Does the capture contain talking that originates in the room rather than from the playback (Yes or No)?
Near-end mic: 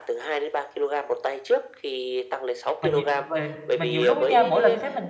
Yes